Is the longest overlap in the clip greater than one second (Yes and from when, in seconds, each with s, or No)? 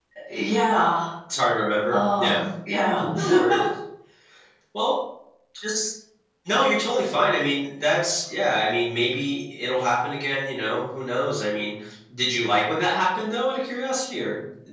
No